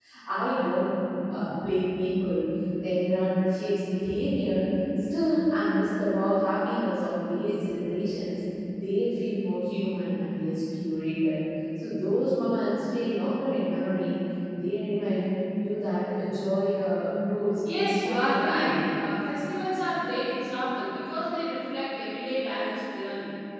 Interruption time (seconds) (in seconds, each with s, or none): 17.6 s